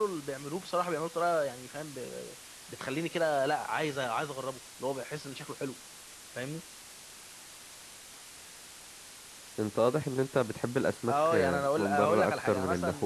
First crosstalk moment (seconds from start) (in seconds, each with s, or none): 11.1 s